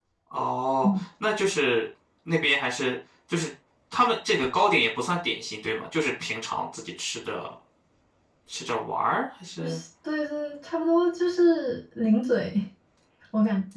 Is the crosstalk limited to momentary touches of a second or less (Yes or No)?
Yes